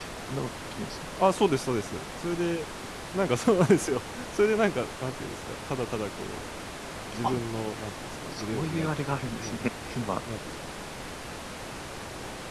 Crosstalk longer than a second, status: present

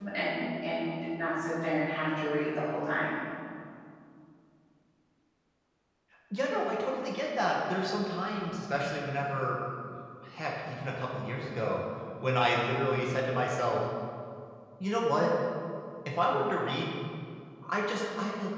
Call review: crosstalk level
none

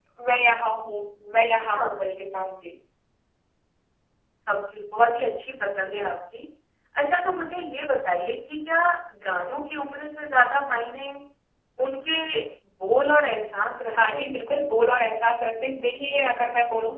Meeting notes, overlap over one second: none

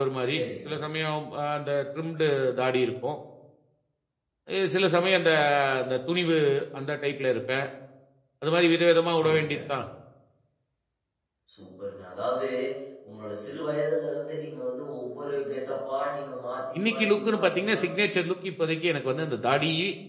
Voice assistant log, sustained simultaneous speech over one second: present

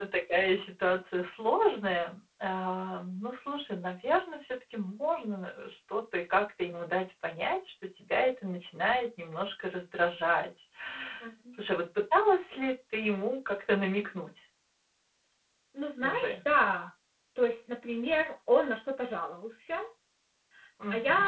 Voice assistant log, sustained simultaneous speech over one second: none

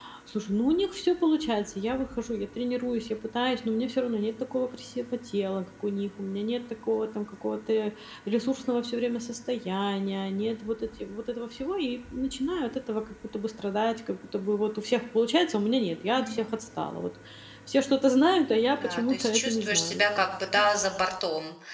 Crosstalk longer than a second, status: present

